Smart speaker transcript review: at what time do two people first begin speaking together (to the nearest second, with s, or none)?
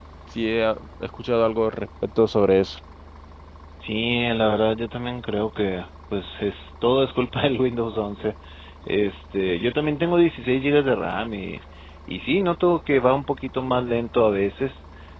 none